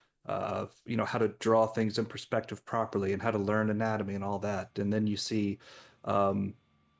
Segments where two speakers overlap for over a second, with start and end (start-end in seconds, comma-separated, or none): none